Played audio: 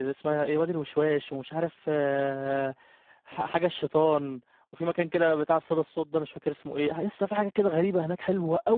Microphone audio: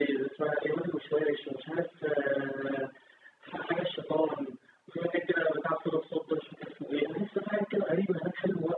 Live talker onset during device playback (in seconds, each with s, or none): none